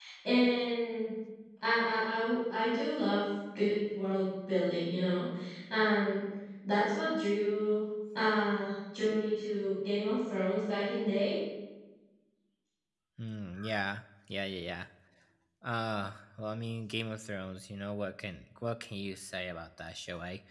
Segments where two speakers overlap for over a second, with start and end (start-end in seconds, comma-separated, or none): none